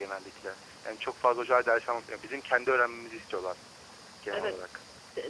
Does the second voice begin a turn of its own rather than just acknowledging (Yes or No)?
Yes